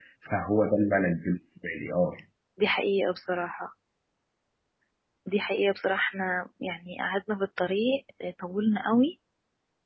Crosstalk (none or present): none